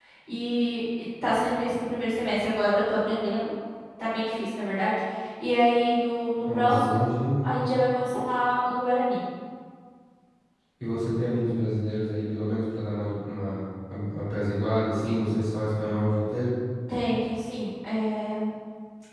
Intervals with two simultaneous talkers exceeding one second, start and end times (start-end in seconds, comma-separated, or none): none